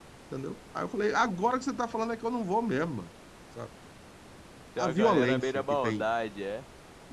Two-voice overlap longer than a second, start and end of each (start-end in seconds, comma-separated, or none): 4.8-6.0